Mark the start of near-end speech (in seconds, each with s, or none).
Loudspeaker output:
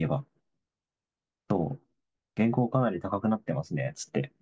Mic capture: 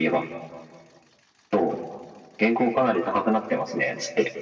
none